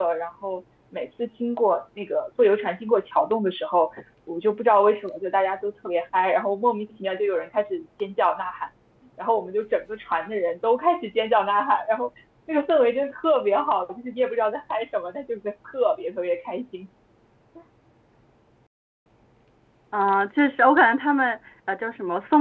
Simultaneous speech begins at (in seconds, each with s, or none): none